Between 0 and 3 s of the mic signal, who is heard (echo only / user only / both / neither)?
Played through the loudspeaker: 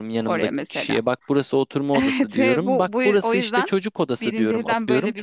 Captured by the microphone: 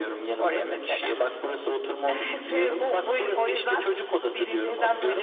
echo only